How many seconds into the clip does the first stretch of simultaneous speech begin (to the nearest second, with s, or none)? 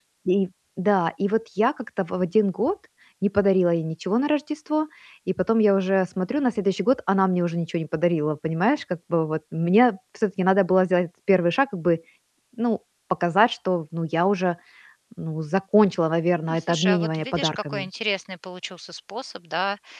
16 s